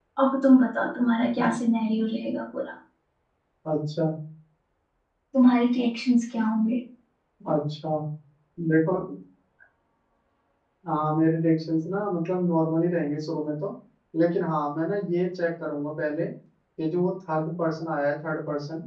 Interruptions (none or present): none